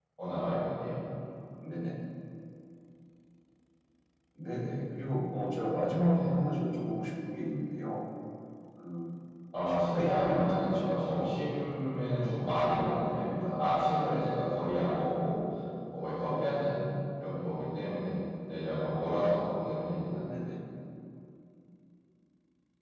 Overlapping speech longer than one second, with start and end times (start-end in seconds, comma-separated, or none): 9.7-11.2